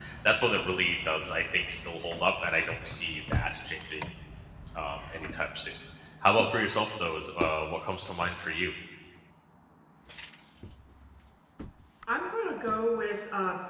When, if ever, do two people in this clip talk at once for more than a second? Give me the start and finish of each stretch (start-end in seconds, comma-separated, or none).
none